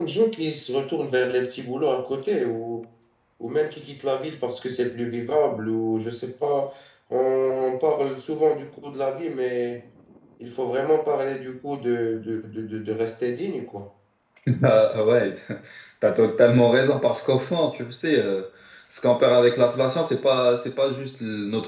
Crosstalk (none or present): none